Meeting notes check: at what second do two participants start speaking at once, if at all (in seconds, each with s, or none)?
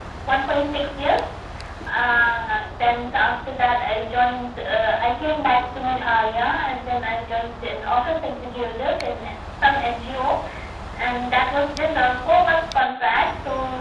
none